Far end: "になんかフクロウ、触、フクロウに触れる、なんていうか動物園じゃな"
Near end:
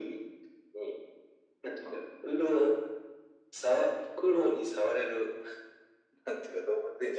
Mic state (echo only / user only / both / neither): echo only